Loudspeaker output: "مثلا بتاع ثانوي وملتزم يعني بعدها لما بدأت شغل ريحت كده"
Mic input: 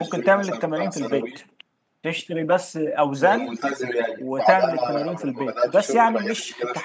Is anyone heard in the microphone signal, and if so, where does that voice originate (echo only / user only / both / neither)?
both